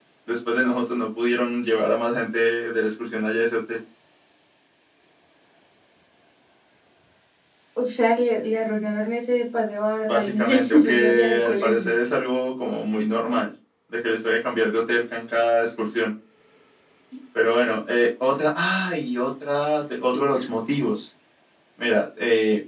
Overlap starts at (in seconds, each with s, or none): 10.1 s